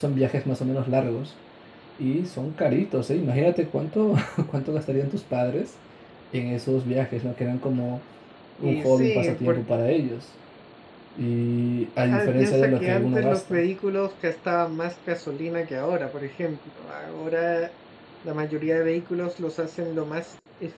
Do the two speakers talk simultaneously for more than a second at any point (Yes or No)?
Yes